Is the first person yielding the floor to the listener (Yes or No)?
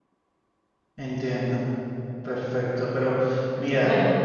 No